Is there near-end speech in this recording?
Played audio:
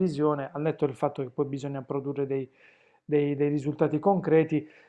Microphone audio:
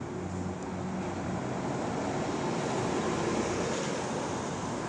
No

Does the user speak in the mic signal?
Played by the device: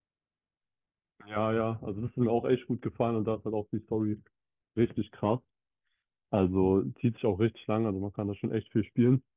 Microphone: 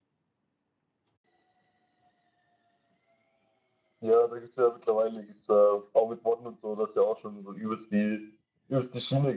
Yes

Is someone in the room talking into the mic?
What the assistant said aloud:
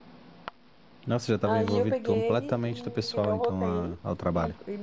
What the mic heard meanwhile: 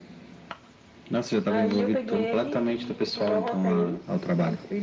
No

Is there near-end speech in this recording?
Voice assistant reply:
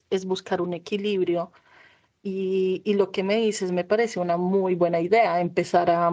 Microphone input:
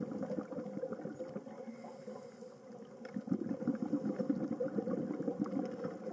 No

